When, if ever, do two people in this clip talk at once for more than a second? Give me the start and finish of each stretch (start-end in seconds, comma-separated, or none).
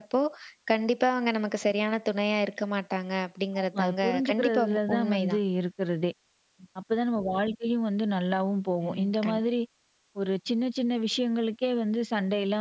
3.6-5.4